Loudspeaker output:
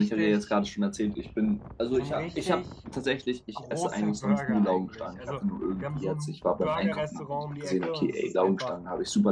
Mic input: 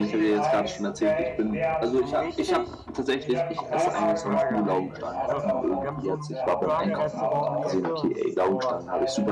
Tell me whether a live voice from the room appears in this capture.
Yes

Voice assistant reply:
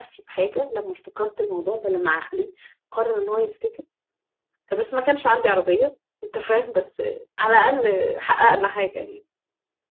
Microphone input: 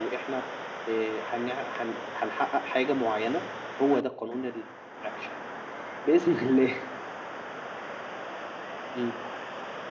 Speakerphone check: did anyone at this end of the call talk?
Yes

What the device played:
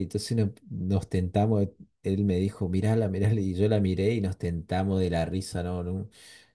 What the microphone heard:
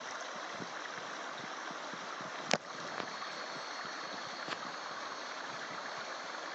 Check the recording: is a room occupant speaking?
No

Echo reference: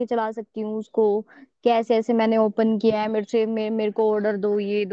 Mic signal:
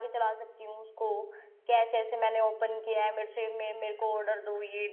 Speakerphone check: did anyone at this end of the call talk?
No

